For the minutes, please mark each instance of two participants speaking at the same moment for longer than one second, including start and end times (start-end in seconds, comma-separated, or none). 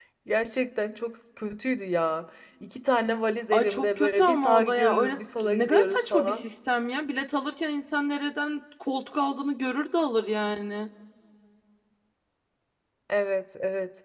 3.5-6.4